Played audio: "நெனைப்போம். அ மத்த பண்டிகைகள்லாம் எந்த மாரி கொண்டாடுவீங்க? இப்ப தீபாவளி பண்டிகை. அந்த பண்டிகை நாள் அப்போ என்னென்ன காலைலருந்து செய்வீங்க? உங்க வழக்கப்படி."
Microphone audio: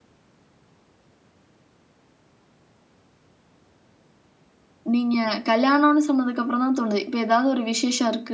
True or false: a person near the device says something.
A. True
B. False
A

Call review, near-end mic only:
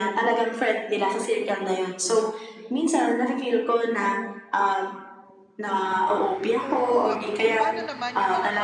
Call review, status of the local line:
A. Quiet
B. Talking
B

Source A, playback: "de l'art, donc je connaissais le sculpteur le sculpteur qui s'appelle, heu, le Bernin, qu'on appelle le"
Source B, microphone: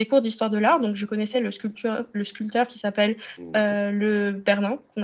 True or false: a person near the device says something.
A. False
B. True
B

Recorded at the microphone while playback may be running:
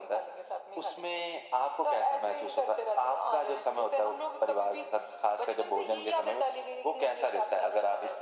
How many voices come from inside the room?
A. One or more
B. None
B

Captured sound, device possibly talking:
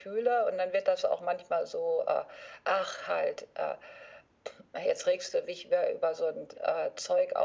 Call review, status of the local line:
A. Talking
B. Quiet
B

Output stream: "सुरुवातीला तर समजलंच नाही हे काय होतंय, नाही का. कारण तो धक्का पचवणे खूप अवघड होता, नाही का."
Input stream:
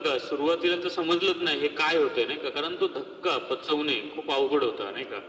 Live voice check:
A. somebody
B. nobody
B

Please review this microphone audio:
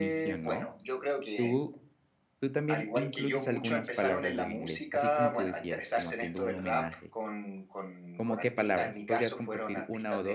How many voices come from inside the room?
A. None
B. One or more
B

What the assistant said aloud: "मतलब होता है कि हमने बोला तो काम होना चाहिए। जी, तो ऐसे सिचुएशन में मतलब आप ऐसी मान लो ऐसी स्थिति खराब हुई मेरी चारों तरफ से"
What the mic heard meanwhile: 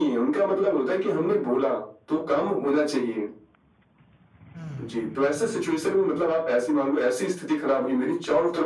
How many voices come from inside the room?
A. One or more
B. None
A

